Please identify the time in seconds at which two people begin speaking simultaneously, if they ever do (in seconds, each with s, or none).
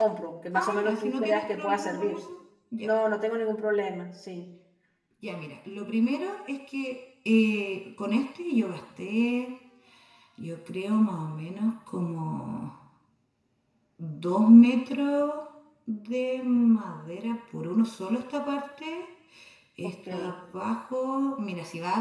0.5 s